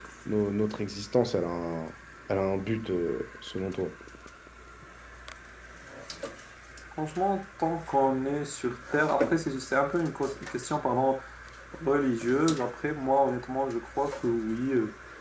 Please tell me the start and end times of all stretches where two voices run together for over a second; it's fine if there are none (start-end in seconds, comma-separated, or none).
none